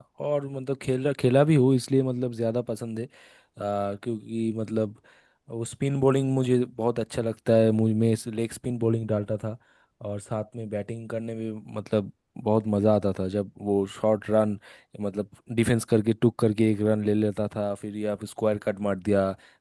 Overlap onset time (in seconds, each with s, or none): none